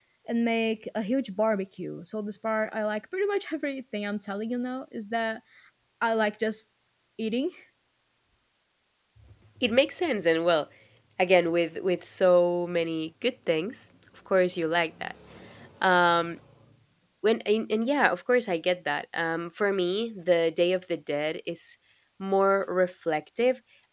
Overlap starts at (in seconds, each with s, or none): none